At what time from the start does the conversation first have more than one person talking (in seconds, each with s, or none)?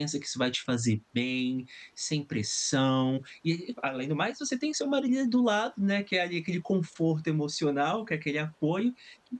none